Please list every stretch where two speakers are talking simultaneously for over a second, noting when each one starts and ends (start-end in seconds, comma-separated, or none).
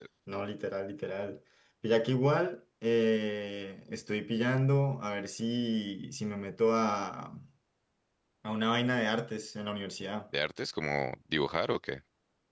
none